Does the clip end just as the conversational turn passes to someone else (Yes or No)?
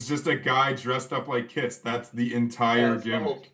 Yes